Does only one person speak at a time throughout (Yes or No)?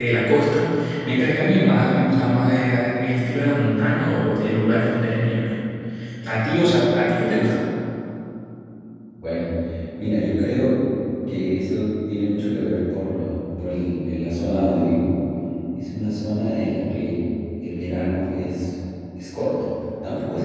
Yes